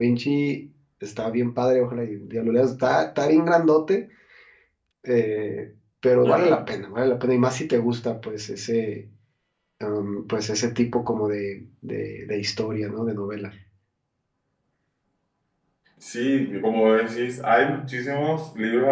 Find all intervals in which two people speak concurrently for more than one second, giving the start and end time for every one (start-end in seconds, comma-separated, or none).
none